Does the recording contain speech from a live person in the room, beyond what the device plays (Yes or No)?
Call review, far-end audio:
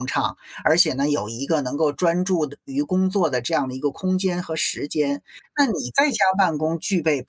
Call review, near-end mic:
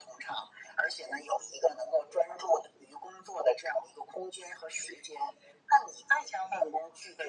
No